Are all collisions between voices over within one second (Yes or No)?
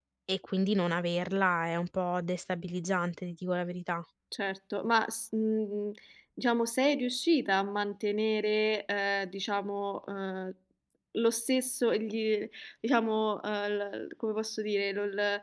Yes